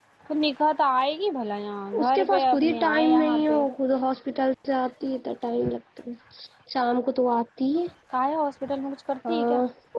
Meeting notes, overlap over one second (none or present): present